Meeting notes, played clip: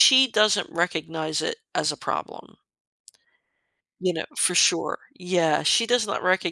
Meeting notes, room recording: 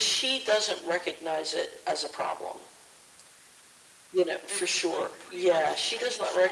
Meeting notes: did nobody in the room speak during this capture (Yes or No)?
No